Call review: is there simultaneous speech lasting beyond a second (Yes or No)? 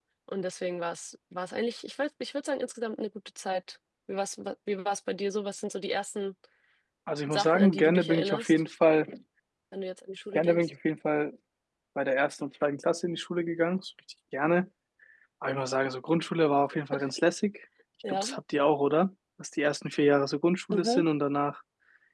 Yes